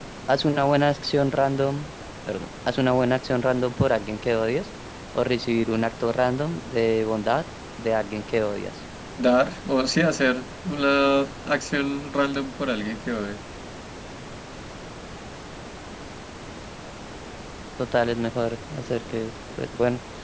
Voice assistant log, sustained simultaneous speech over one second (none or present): none